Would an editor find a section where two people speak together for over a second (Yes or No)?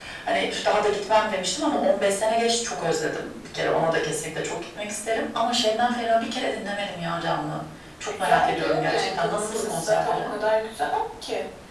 Yes